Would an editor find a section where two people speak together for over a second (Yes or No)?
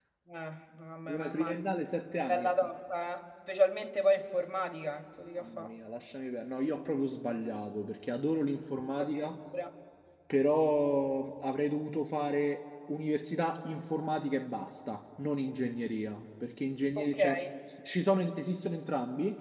No